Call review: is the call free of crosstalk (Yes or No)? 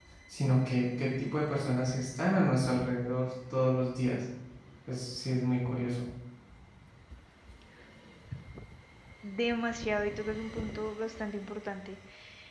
Yes